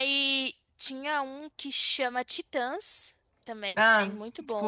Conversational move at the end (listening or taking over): taking over